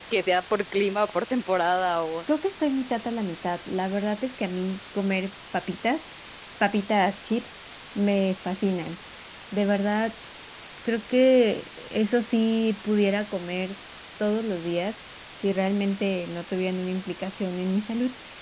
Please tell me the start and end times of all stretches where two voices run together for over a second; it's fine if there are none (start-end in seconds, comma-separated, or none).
none